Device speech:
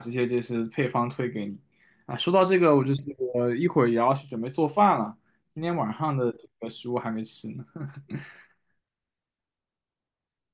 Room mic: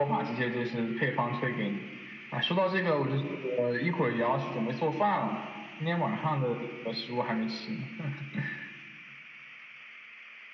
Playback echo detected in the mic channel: Yes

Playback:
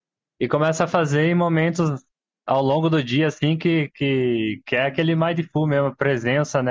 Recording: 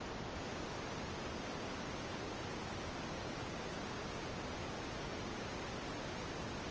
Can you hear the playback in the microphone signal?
No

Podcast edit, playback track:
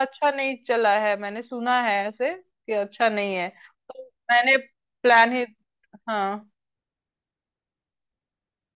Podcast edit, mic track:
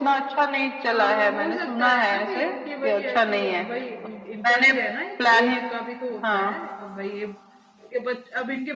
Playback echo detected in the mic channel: Yes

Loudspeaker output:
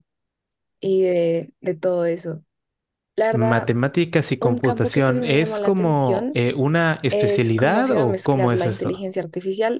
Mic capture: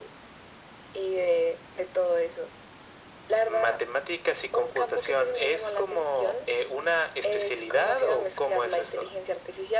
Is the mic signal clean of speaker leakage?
No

